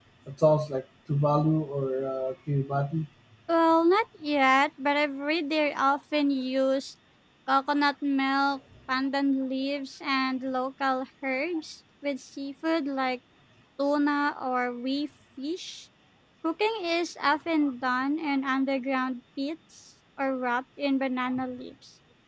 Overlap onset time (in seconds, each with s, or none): none